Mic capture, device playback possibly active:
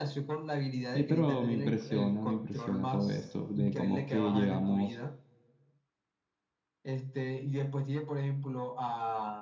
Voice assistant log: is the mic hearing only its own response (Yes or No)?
No